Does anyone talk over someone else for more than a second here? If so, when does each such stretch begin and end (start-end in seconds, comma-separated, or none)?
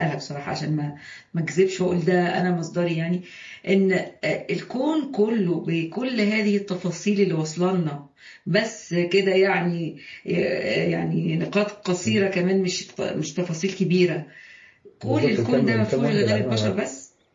15.0-16.7